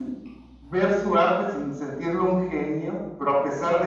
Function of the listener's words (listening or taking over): listening